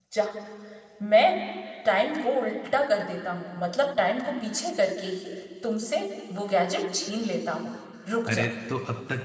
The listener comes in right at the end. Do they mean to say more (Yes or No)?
Yes